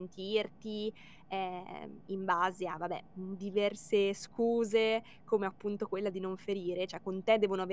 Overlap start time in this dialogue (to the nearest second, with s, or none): none